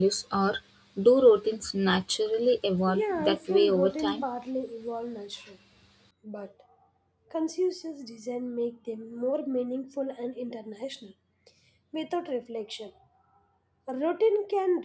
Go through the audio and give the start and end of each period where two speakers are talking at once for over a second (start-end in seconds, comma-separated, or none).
2.9-4.2